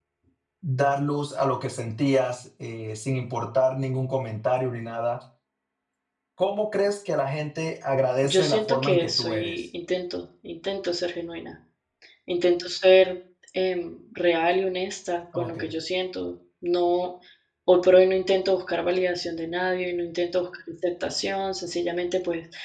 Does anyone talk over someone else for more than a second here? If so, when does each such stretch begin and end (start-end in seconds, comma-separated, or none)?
8.2-9.6